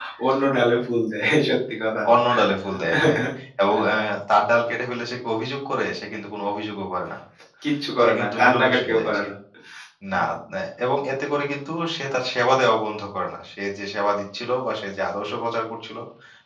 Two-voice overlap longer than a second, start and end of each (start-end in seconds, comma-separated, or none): 8.0-9.2